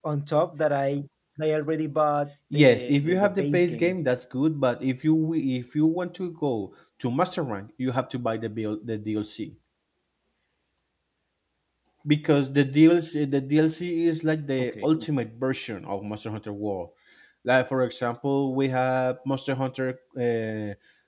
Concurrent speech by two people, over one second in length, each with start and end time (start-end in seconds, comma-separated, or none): 2.5-4.0